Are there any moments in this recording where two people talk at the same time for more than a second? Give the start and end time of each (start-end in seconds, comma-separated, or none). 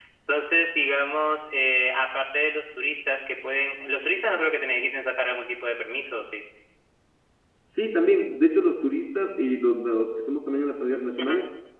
none